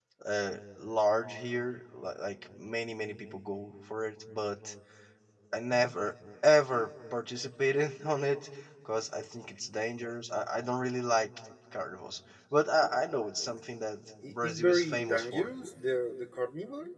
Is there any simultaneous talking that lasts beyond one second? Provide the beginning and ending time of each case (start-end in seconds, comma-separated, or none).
14.2-15.5